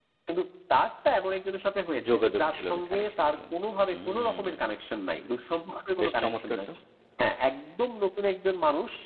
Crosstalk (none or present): present